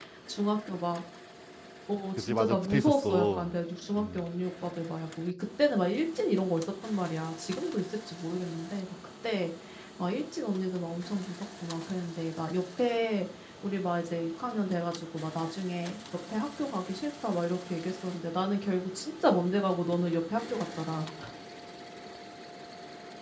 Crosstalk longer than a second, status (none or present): present